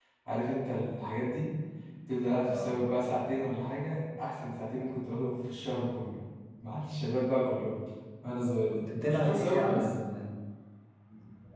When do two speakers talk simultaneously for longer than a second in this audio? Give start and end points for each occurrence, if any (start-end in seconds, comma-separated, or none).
8.7-9.9